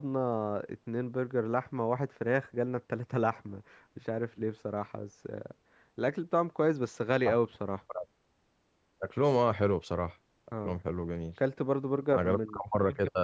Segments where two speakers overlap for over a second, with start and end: none

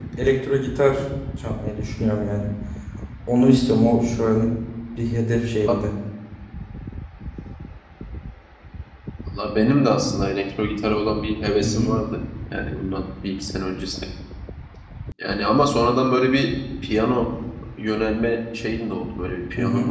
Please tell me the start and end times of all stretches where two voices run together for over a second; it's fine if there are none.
none

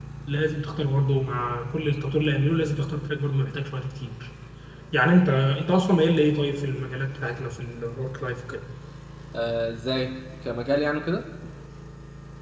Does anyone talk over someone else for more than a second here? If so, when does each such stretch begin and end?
none

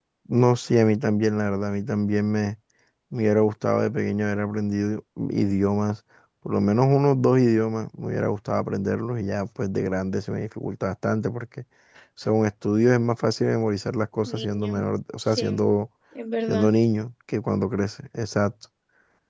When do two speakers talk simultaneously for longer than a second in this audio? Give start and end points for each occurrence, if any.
none

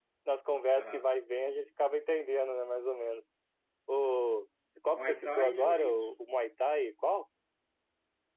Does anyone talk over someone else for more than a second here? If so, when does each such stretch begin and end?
4.9-6.1

